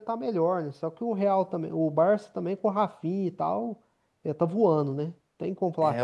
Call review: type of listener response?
taking over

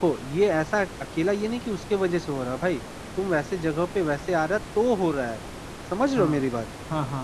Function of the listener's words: taking over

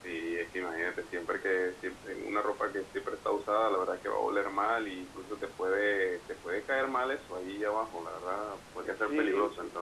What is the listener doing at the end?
listening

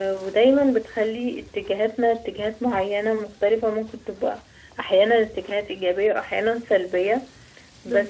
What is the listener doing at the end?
listening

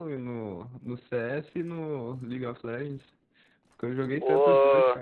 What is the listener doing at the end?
taking over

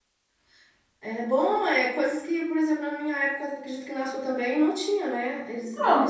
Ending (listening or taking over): listening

